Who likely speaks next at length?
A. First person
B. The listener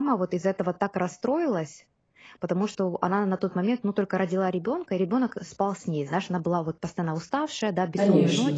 A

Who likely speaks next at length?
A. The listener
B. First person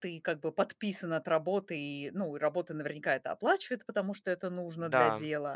B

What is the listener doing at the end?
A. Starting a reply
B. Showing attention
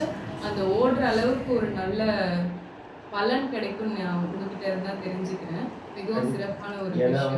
A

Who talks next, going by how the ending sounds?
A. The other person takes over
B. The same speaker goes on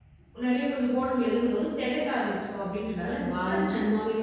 A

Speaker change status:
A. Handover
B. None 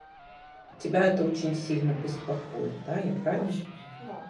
A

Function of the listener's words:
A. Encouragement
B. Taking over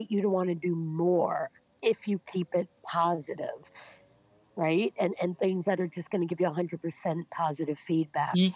B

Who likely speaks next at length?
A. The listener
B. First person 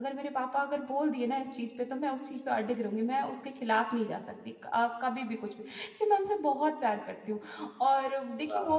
B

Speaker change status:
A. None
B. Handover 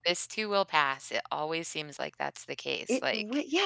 B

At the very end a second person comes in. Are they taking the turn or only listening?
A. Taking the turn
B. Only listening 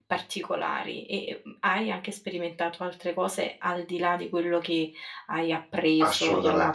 A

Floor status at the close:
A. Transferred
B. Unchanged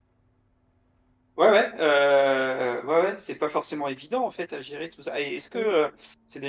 B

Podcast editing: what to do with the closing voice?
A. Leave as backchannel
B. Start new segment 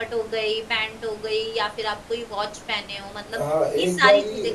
B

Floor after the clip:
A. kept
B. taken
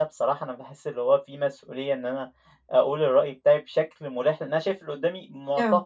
A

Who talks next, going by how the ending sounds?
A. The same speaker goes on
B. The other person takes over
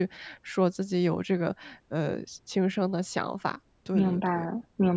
B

